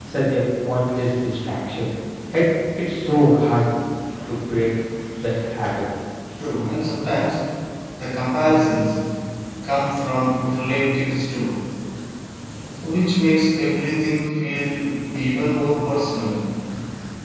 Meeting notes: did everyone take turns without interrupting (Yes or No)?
Yes